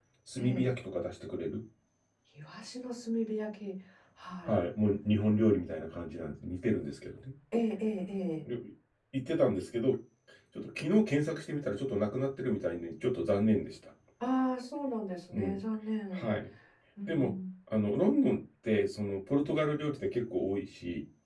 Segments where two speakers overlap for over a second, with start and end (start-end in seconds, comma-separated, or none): none